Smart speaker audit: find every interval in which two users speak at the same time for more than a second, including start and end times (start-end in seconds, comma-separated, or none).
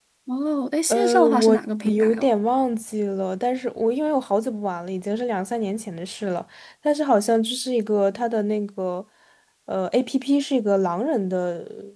0.9-2.3